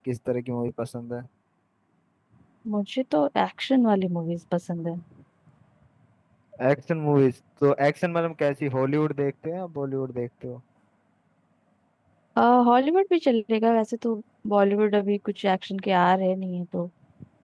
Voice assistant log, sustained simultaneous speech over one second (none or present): none